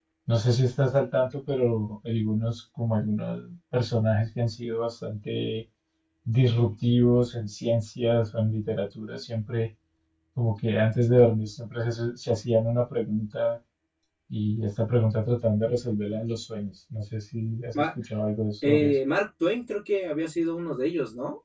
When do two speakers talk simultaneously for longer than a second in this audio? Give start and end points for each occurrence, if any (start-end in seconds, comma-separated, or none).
none